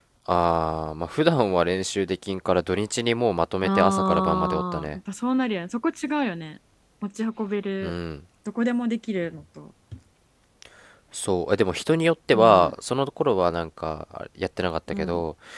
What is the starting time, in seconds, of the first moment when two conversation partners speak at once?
3.6 s

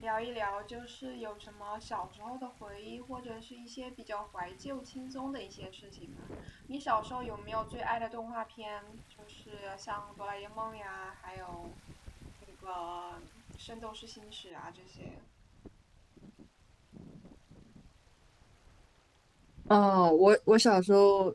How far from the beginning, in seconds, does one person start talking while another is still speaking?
none

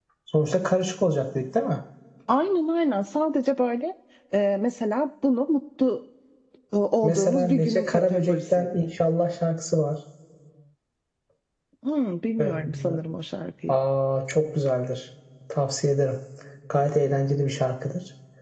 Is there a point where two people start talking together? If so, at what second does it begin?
7.0 s

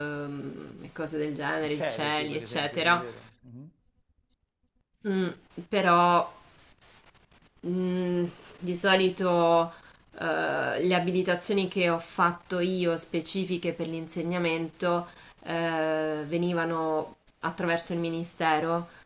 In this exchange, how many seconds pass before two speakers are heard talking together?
1.6 s

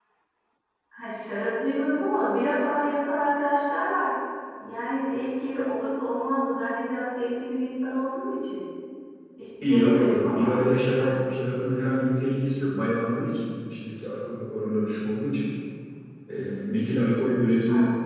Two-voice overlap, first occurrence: 9.7 s

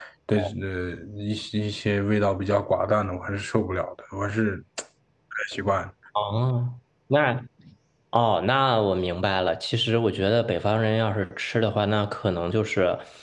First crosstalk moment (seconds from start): none

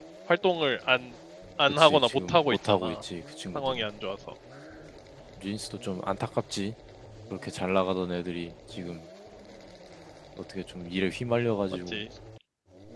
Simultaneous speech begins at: 1.7 s

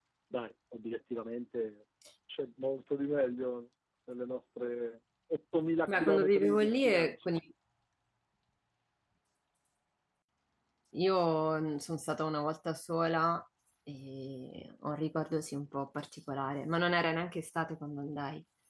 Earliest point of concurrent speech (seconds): 5.9 s

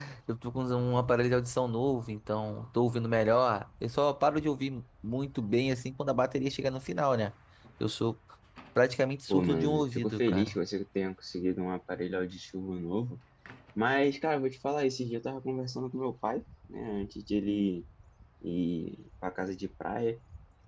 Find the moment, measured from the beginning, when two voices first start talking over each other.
9.3 s

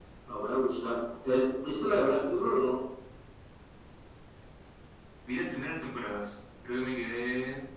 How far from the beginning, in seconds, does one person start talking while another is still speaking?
none

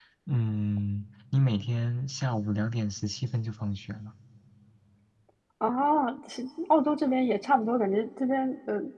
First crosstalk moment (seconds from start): none

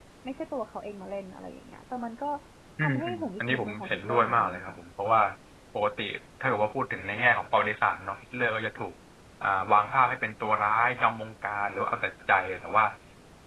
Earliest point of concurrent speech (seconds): 2.8 s

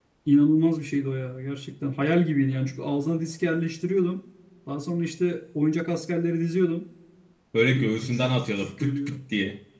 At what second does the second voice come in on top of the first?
7.8 s

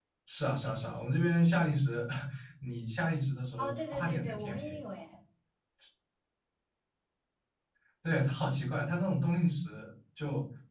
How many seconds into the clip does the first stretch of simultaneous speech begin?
3.6 s

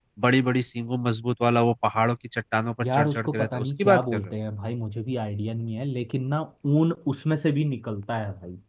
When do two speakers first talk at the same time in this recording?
2.8 s

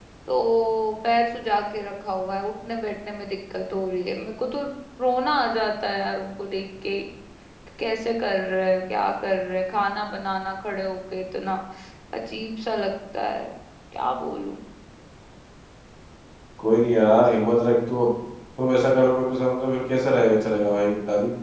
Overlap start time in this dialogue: none

